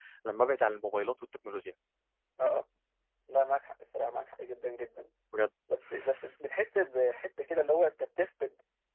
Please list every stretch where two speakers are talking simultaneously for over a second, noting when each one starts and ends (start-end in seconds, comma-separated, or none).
none